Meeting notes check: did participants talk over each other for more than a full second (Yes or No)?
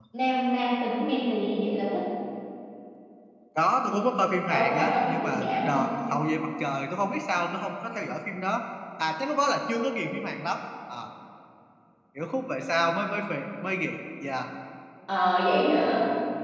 Yes